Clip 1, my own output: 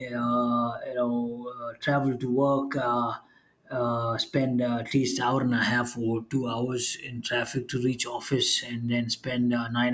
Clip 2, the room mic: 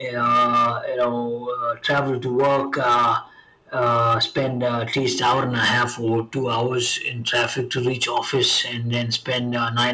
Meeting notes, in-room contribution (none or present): none